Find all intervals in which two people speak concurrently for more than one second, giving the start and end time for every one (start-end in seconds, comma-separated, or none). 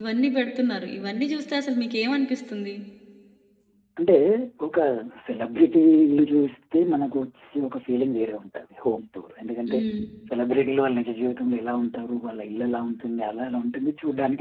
none